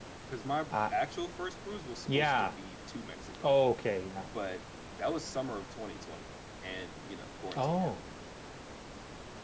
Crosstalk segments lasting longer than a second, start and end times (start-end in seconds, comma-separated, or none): none